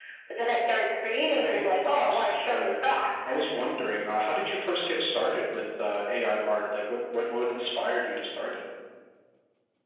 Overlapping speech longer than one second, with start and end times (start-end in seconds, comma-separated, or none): 1.3-2.8